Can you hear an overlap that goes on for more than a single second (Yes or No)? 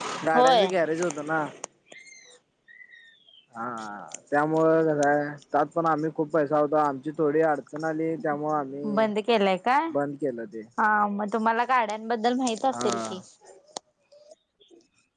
No